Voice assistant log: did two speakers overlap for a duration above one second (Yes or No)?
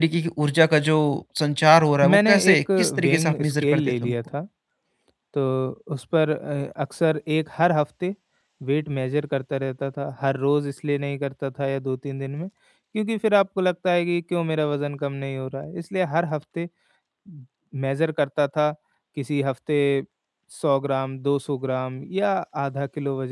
Yes